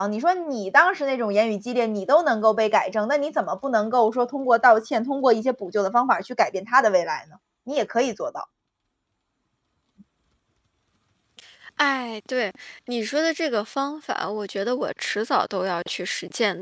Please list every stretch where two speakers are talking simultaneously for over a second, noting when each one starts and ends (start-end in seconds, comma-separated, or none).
none